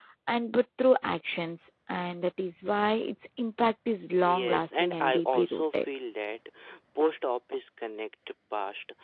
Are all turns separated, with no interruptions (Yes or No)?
No